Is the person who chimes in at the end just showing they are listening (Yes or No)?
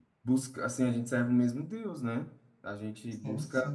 Yes